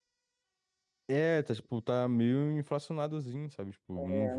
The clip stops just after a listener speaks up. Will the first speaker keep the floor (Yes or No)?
No